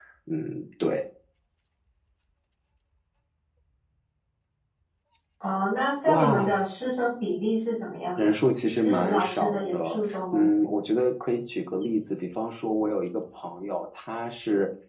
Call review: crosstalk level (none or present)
present